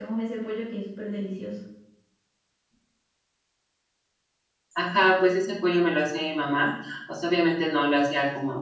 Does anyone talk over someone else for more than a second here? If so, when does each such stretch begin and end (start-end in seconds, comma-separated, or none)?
none